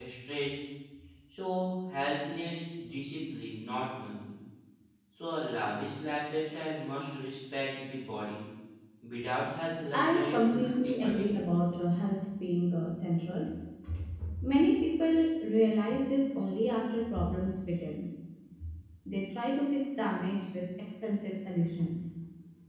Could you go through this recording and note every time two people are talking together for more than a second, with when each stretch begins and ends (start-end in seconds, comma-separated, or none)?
9.9-11.3